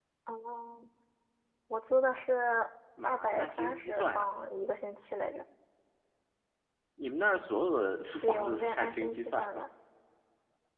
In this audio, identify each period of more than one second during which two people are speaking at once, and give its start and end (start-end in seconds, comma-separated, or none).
3.0-4.2, 8.2-9.6